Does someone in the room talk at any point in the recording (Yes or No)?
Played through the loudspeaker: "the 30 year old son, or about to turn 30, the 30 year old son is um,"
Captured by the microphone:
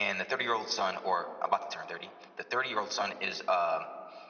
No